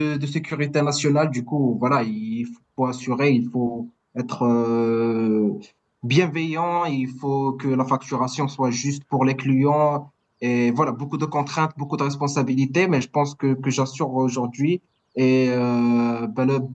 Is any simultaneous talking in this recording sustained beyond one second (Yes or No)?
No